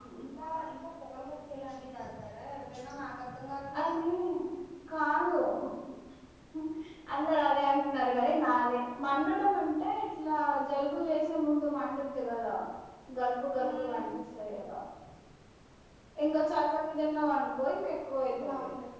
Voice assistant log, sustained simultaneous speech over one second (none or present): none